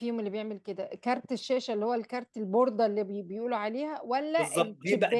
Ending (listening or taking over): taking over